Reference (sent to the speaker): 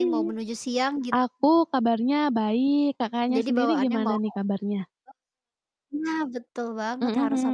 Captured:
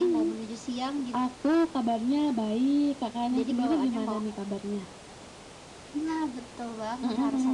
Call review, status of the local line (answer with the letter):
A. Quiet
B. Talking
A